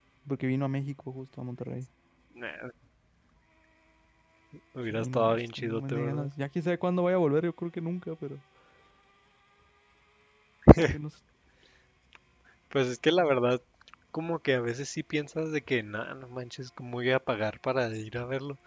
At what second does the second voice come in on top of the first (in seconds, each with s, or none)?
4.9 s